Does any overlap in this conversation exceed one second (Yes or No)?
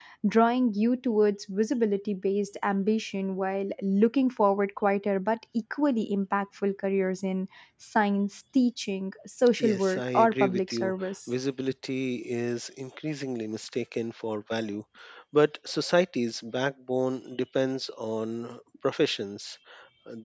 Yes